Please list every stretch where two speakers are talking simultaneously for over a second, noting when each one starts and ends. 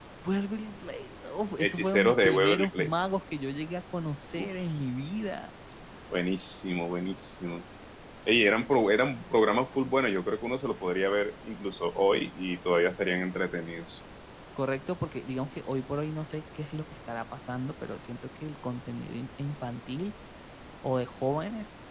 1.6-3.0

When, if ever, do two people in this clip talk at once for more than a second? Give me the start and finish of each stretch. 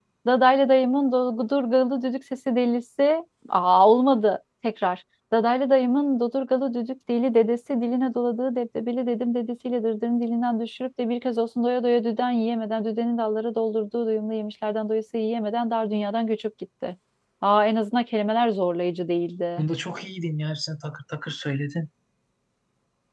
none

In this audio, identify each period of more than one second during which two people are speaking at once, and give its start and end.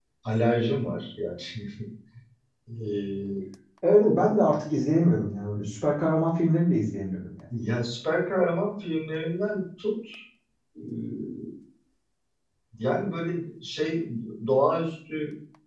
none

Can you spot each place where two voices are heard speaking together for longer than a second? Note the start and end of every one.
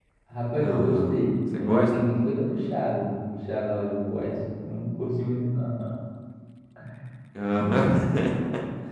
0.6-2.1

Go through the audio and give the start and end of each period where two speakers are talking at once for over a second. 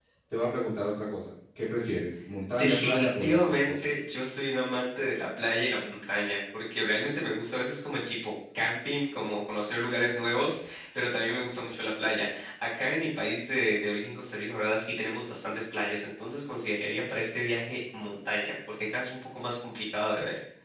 2.6-3.9

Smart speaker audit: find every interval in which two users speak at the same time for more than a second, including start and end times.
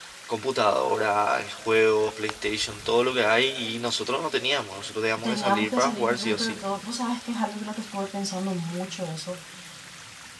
5.3-6.6

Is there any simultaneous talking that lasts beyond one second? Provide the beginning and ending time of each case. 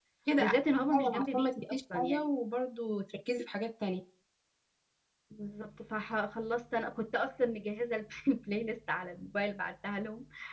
0.9-2.2

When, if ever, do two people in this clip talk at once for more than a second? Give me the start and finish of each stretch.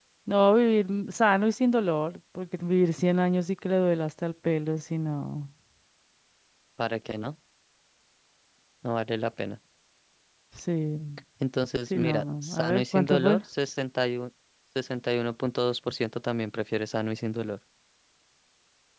11.9-13.4

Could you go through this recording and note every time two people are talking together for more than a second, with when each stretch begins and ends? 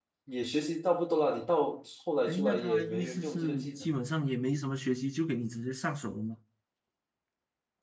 2.2-4.0

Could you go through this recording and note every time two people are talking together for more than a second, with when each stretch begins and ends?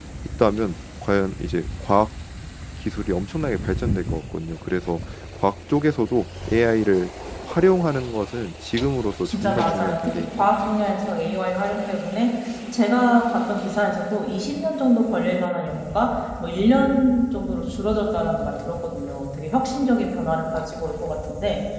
9.2-10.5

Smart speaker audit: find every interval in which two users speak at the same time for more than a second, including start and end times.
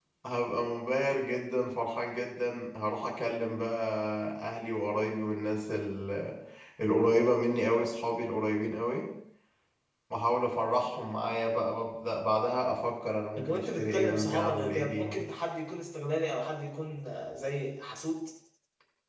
13.4-15.2

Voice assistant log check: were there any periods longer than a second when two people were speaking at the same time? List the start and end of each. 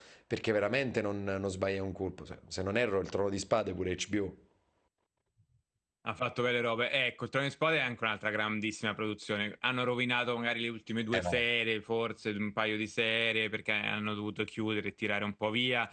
none

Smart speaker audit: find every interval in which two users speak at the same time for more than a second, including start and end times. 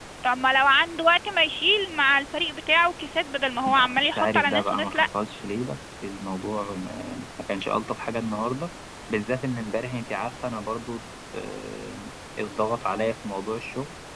3.6-5.1

